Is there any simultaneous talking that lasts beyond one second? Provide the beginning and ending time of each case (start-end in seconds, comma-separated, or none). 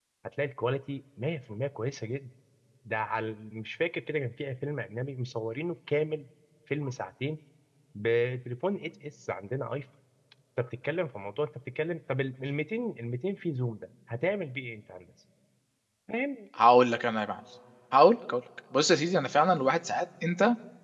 none